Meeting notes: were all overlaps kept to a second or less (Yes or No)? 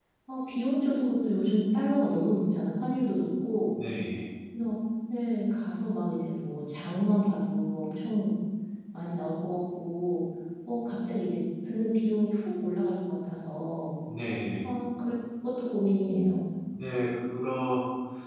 Yes